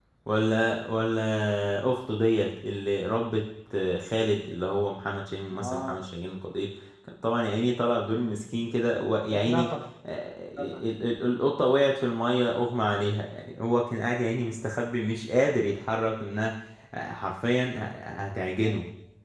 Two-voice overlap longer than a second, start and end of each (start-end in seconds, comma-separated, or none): none